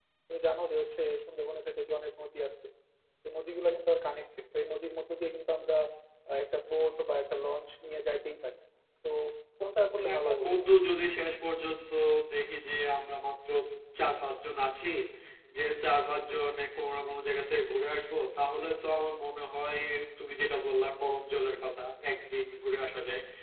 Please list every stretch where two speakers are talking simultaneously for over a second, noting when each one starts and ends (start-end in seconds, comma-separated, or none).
none